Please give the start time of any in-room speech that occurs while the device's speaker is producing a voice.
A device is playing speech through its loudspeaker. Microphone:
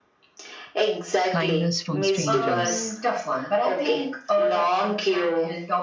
1 s

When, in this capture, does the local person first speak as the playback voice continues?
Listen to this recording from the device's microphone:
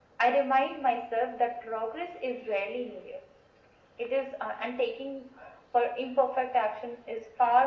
none

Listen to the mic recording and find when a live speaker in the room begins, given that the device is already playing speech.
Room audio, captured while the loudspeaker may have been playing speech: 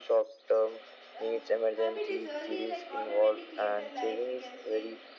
1 s

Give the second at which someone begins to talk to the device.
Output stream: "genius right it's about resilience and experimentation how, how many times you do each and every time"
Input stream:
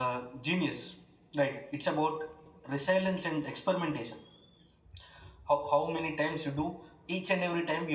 none

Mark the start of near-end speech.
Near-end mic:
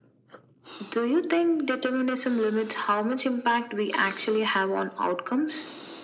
none

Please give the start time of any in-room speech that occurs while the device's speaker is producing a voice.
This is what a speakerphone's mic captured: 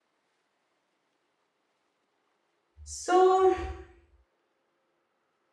3 s

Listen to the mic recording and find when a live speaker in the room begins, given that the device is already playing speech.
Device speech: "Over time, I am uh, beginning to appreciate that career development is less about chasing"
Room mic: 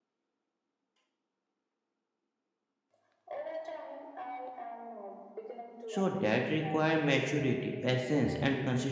6 s

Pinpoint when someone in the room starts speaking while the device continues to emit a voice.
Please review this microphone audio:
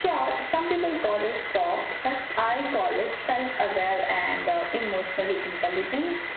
none

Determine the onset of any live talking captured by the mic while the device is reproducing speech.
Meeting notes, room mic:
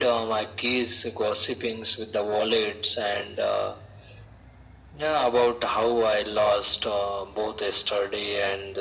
none

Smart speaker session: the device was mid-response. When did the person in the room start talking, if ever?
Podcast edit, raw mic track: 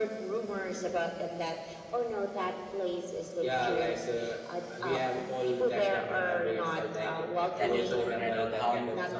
8 s

